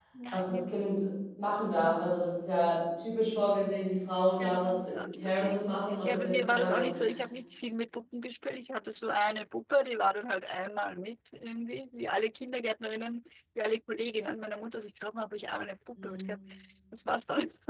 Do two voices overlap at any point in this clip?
Yes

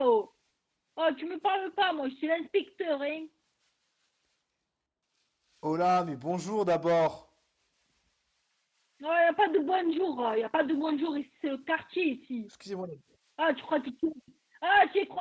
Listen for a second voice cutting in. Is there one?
No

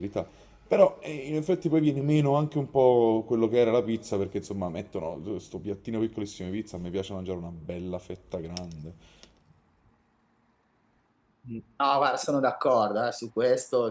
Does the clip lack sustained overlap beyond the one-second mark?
Yes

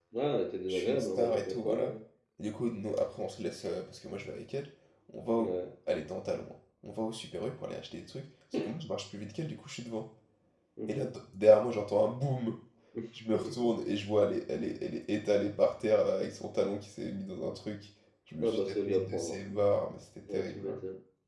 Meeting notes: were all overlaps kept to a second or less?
No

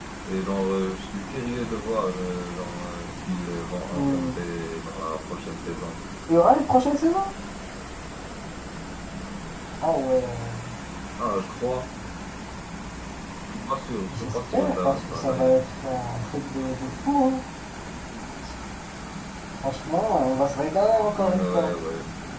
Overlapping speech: Yes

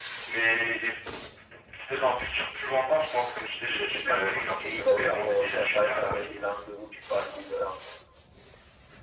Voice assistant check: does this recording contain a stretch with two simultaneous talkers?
Yes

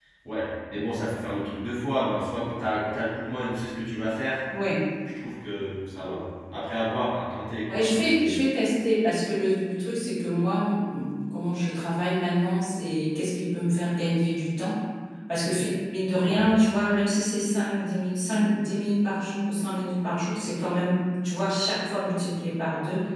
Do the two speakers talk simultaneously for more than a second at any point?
No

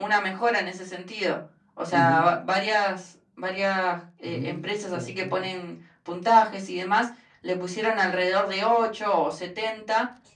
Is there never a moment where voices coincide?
No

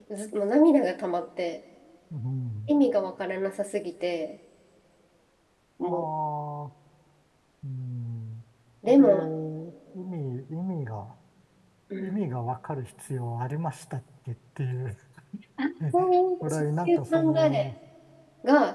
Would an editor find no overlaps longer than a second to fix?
No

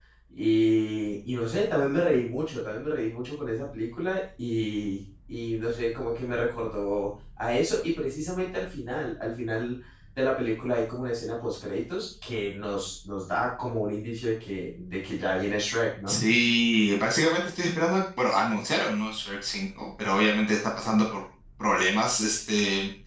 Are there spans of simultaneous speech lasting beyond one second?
No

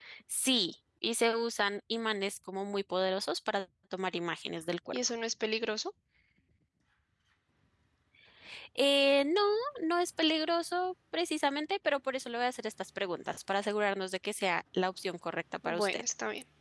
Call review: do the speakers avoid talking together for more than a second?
Yes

